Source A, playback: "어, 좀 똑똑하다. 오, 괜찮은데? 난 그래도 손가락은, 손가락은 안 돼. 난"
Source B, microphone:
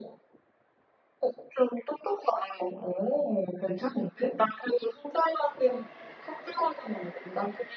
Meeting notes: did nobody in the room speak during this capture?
Yes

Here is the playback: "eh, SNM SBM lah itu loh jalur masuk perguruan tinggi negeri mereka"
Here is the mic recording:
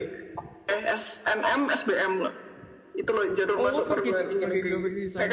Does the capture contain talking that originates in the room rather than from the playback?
Yes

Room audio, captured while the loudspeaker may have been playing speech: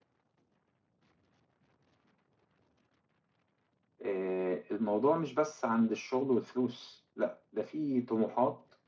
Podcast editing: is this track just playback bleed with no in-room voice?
No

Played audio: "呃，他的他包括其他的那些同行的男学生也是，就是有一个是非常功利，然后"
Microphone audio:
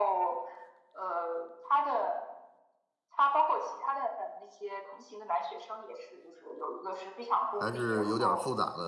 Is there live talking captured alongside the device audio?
Yes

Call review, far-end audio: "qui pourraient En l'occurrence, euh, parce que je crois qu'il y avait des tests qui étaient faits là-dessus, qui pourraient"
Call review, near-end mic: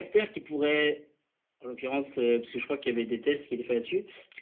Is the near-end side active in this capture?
No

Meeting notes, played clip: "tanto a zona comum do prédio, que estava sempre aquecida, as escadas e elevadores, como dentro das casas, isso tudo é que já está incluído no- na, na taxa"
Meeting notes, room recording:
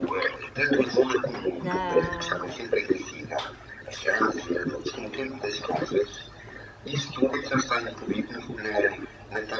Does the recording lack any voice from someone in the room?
No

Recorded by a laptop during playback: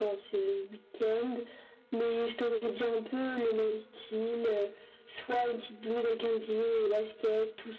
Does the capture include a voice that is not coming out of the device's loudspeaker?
No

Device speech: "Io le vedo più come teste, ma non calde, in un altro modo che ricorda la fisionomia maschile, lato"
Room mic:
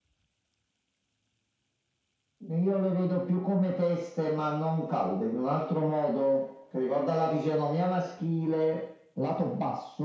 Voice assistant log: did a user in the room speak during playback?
No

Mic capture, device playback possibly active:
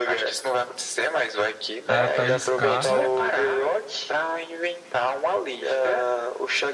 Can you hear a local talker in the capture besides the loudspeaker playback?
Yes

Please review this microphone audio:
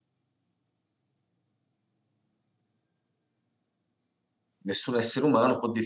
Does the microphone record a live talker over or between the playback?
Yes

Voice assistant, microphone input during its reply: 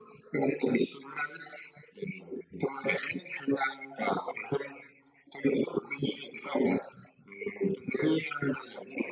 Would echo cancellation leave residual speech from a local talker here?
No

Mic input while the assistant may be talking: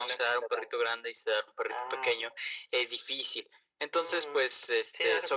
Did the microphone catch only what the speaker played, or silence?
Yes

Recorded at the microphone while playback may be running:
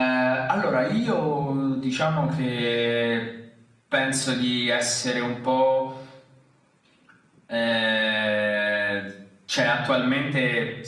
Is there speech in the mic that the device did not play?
No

